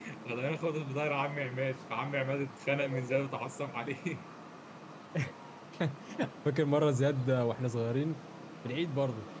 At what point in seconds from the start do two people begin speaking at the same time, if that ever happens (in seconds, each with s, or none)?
none